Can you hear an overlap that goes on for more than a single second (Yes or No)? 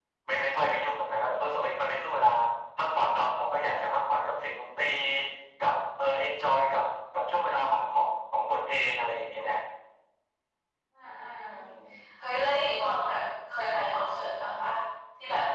No